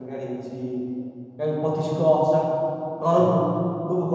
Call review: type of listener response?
listening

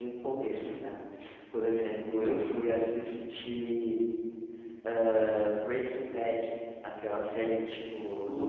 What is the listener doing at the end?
listening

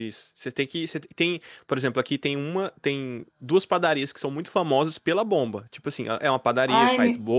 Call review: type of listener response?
listening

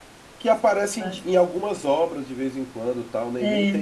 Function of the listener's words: listening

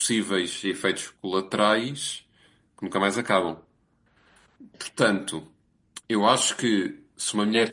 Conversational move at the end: taking over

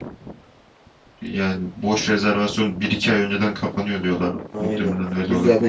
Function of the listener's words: taking over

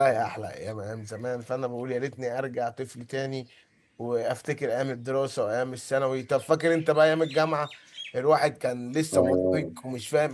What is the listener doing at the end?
listening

